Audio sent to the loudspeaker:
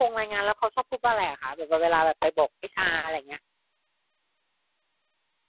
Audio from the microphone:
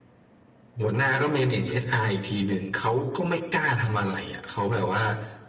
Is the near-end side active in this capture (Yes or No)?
Yes